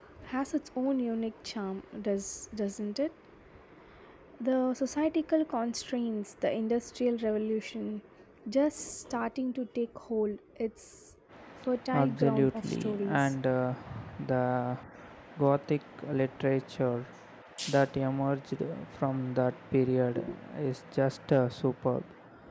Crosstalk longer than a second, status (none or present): present